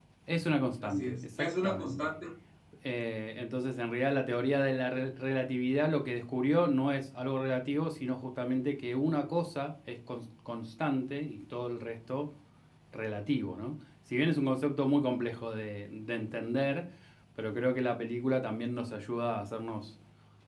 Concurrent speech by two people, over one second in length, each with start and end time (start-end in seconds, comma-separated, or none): 0.8-2.1